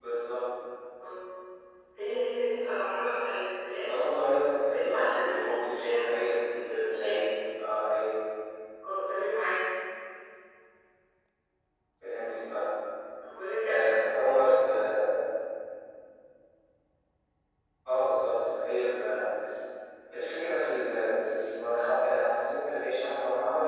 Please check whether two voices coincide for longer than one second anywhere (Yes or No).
Yes